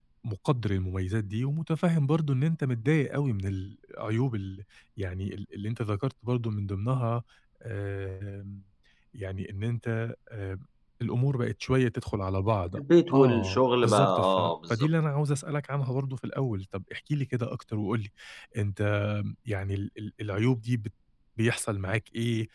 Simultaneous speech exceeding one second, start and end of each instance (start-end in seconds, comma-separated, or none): 13.1-14.9